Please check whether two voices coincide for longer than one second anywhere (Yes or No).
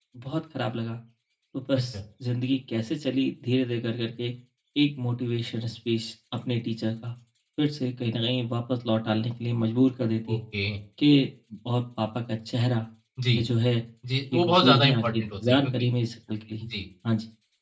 Yes